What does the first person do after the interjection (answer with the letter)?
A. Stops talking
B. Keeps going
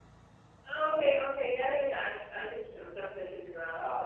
A